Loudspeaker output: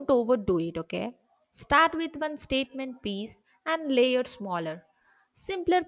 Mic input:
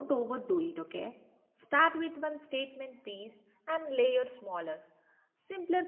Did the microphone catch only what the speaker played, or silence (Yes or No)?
Yes